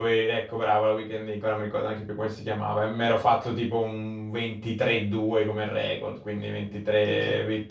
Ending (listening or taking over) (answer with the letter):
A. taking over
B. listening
B